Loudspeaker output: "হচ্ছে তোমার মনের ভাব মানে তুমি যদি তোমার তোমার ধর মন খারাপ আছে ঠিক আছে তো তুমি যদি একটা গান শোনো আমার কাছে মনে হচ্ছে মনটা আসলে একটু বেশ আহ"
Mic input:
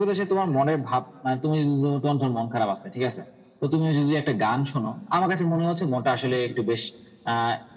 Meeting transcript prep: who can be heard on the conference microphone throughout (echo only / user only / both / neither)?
echo only